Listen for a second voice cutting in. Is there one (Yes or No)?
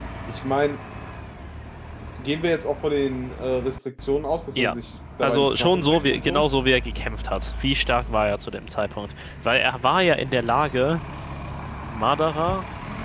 Yes